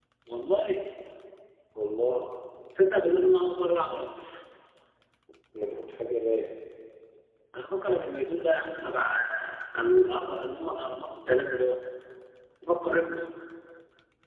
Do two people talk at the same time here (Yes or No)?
No